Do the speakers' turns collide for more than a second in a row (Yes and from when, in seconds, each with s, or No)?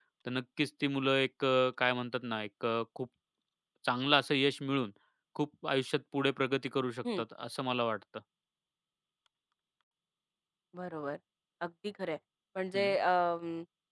No